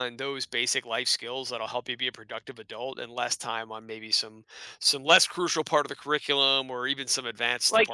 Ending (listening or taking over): taking over